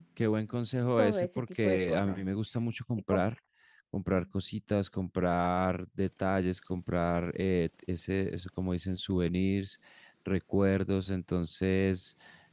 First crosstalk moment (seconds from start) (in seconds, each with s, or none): 1.0 s